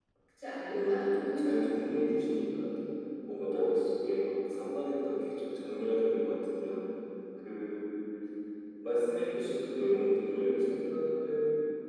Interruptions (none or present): present